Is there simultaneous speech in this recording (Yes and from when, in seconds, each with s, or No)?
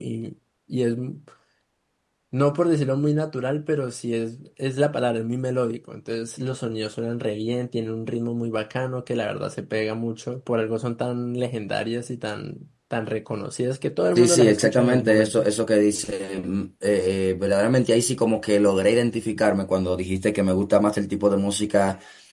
Yes, from 14.2 s